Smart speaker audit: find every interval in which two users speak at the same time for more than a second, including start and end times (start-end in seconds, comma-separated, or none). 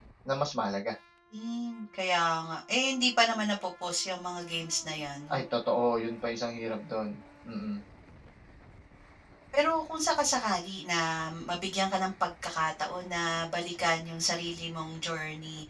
none